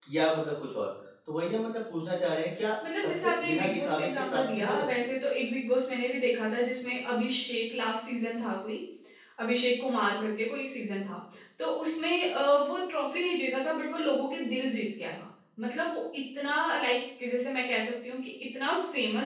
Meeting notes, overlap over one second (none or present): present